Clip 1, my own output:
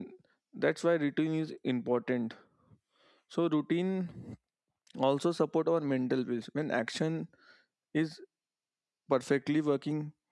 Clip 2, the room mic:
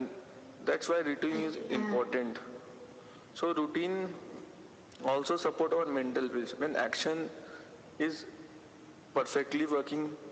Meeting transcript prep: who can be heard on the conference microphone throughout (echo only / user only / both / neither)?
both